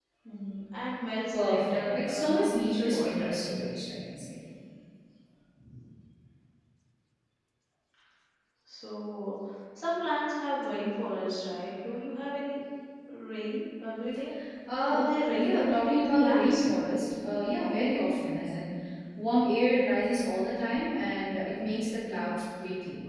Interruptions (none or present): present